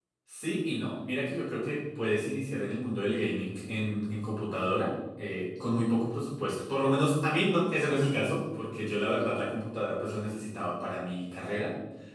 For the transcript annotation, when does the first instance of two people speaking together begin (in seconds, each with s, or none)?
none